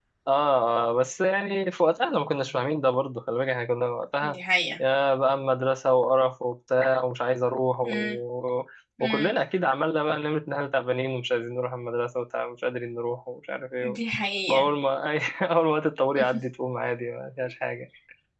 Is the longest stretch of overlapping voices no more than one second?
Yes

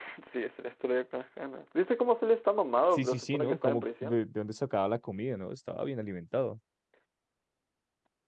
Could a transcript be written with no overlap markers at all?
No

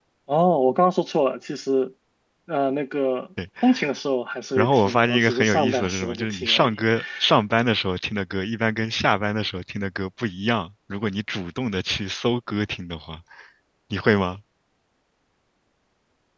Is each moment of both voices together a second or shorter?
No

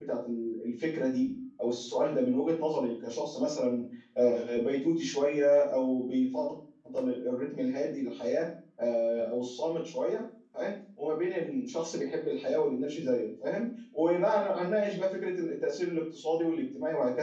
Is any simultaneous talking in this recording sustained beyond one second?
No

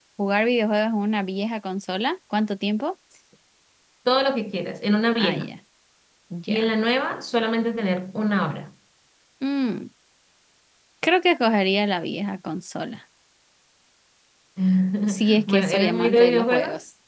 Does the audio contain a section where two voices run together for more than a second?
Yes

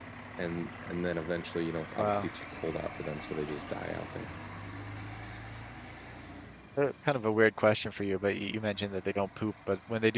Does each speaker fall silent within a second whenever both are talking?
Yes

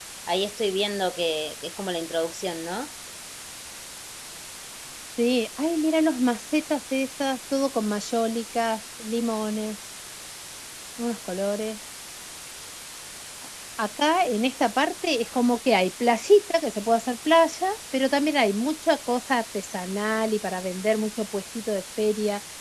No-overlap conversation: Yes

